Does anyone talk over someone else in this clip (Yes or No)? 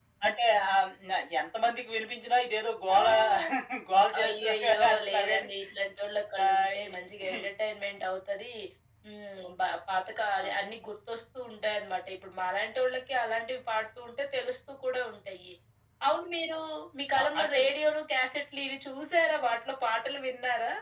Yes